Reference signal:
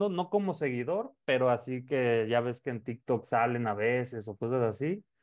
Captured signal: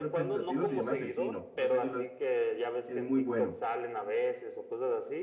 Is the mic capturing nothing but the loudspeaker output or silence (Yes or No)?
No